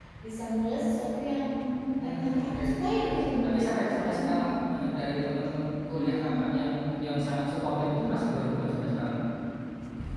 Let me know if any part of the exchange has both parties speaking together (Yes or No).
Yes